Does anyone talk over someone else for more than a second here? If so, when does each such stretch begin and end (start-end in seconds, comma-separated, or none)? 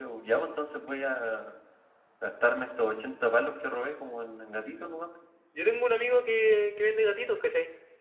none